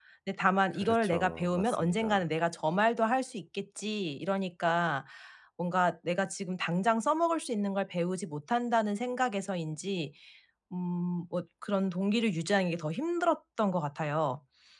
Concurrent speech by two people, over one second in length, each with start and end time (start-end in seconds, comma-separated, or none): 0.7-2.2